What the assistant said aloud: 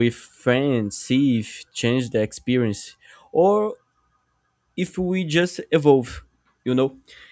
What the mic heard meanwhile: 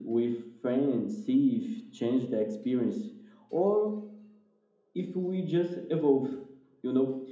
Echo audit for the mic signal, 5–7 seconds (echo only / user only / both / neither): echo only